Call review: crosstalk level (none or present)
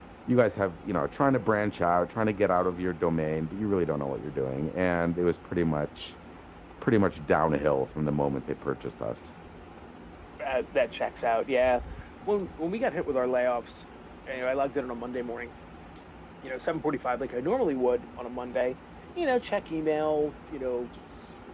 none